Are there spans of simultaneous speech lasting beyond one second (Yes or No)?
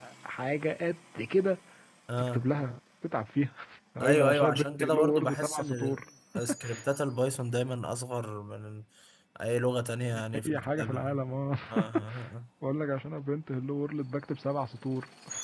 Yes